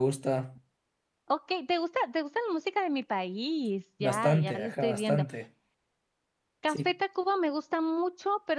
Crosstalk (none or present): present